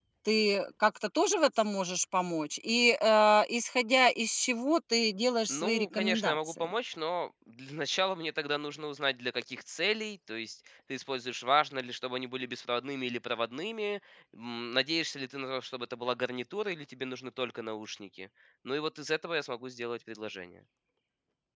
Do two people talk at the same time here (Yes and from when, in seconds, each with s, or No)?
Yes, from 5.5 s